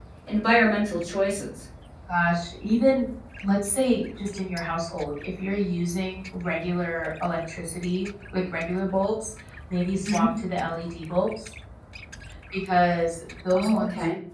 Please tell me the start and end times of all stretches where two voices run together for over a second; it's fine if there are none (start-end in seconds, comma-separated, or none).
none